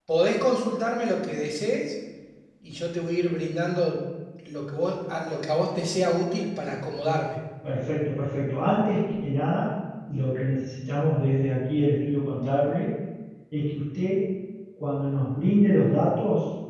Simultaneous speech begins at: none

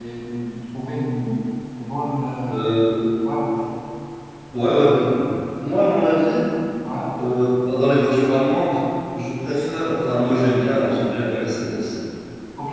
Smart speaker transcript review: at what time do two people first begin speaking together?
none

